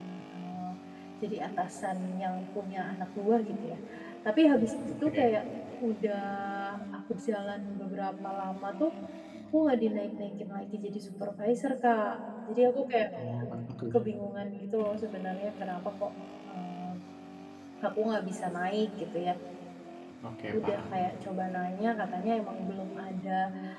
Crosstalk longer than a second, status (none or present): none